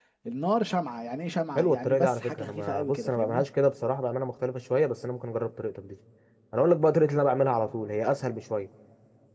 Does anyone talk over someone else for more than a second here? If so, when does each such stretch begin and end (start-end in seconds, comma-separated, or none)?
1.6-3.4